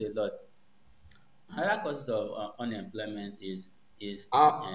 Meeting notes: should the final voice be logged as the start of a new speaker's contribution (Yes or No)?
No